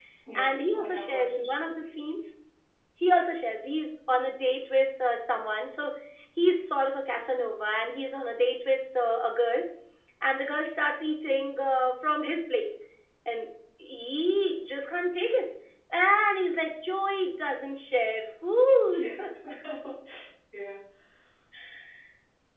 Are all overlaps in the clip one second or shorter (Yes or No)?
No